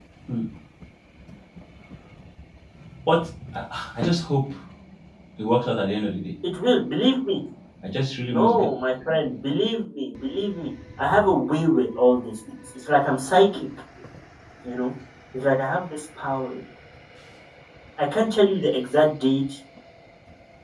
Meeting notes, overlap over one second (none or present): none